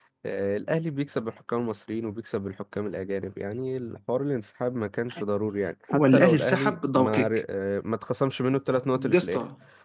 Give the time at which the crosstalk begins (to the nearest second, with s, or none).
6 s